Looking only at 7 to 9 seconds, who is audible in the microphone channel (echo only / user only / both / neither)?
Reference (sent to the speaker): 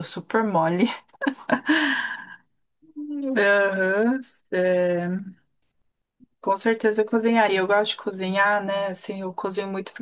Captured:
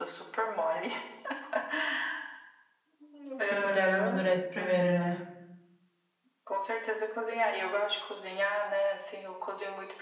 echo only